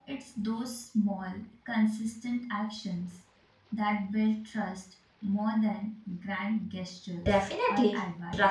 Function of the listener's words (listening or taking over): taking over